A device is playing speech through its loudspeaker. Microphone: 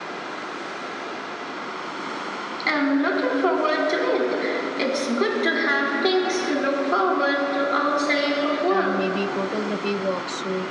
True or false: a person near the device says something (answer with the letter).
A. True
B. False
A